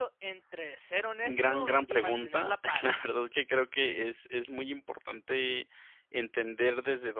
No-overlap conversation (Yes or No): No